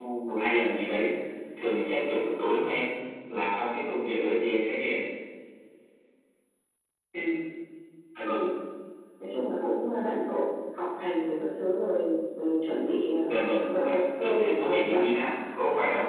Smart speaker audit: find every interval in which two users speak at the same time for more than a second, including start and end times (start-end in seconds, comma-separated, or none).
13.7-15.0